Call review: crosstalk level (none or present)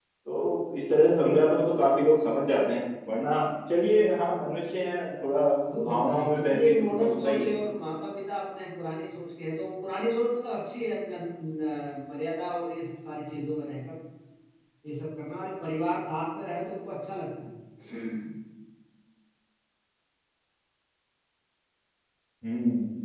present